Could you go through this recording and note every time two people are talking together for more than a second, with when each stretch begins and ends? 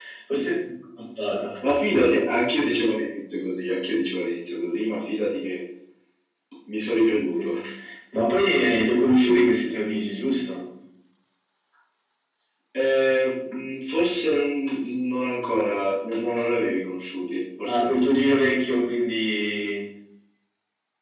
none

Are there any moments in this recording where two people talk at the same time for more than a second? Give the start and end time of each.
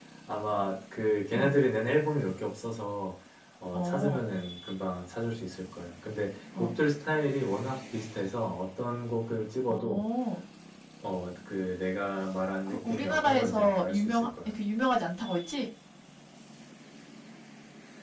12.7-14.5

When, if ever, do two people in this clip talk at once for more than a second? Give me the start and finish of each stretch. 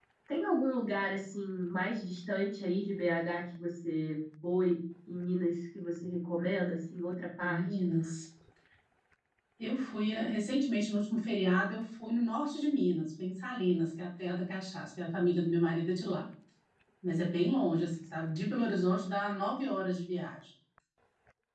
none

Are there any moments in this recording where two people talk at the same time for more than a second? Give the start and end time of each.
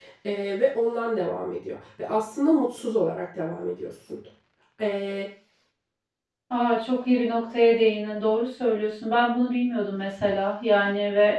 none

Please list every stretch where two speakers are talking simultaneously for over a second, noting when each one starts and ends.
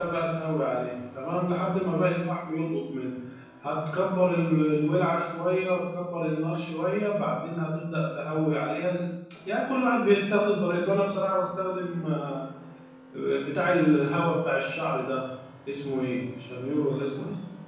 none

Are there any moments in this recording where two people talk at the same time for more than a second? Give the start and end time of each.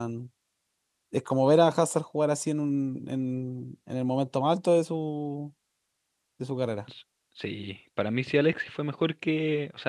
none

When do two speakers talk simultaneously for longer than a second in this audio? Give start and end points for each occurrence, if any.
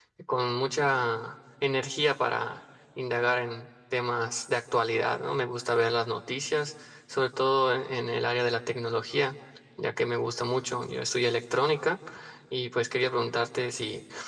none

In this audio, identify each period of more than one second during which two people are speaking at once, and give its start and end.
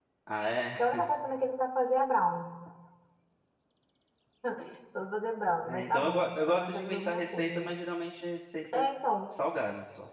5.6-7.8

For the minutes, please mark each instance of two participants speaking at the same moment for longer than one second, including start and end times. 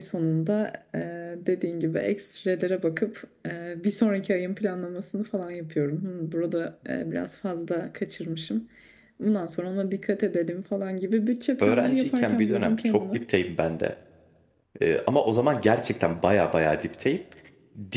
11.6-13.0

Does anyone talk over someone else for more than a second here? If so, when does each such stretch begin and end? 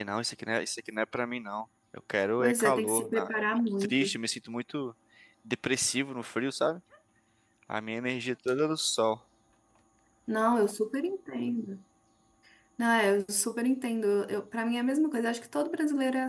2.4-4.2

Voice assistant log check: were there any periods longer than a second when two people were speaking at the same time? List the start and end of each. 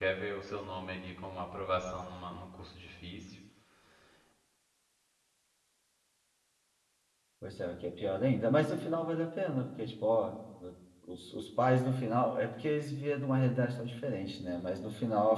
none

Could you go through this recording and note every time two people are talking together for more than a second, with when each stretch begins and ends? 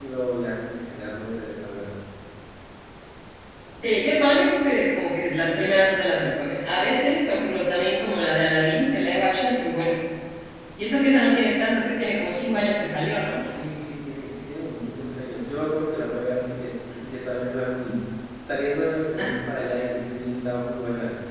none

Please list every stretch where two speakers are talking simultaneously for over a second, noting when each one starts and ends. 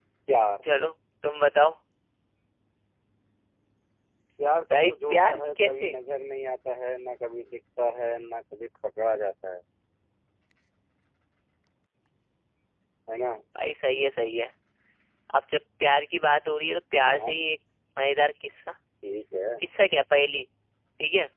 4.7-6.0

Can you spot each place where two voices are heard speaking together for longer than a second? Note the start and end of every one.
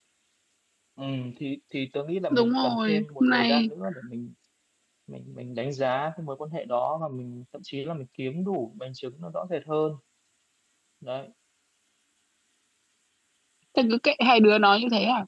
2.3-3.7

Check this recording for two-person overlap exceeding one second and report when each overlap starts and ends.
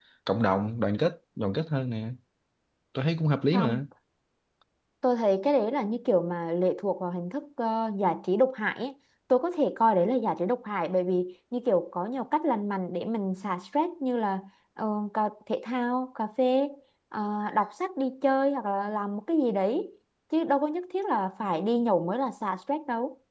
none

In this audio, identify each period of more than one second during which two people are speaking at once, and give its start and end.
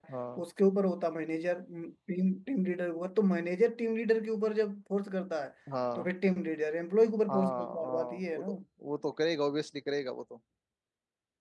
7.3-8.5

